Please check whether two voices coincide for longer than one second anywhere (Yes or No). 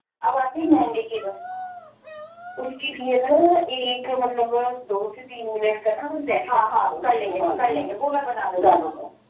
No